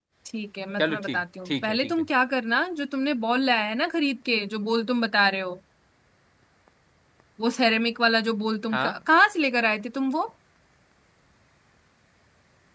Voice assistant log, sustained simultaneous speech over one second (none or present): present